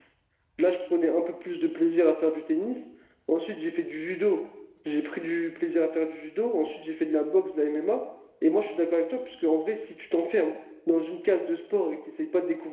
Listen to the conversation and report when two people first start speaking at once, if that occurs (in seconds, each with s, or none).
none